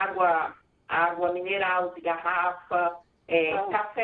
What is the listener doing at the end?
listening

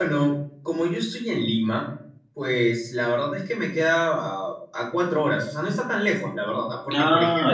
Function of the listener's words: listening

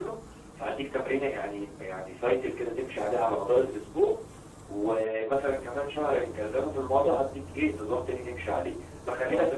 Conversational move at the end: listening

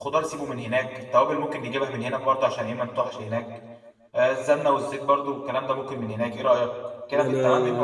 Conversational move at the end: taking over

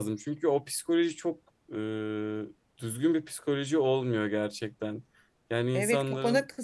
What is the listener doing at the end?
taking over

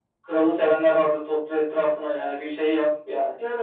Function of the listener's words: taking over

